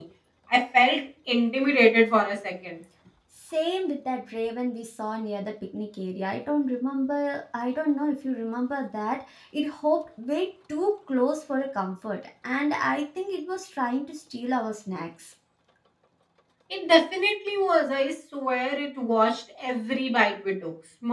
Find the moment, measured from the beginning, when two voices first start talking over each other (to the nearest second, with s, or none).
none